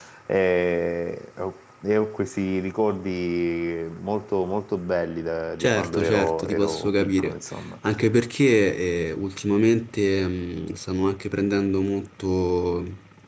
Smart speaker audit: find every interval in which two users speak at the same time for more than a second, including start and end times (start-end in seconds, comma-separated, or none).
5.6-7.4